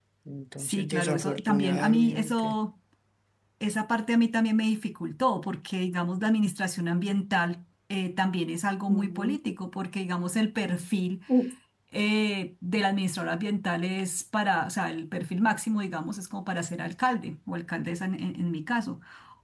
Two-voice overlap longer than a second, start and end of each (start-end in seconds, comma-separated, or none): 0.6-2.5